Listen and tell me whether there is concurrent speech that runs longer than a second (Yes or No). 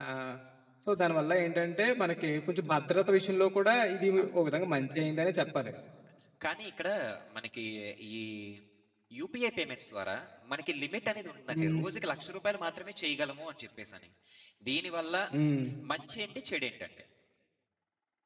No